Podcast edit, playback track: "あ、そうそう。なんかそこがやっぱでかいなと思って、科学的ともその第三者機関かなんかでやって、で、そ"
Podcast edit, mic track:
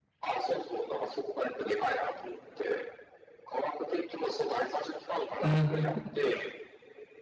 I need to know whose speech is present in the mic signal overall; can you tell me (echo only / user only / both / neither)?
both